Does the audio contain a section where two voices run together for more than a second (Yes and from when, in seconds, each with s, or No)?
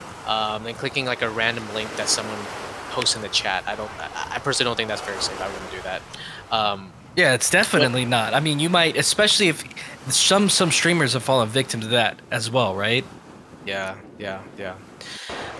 No